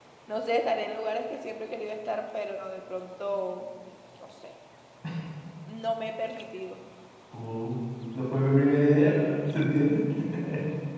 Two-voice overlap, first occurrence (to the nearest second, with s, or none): none